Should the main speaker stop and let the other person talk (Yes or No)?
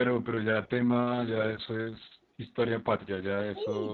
Yes